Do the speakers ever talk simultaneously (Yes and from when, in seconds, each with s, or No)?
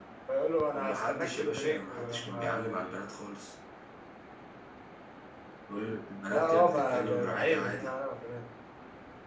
Yes, from 0.7 s